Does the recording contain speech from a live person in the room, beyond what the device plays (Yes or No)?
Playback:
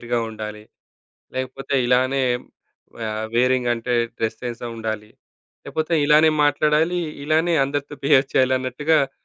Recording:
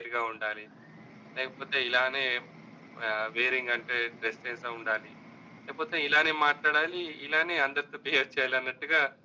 No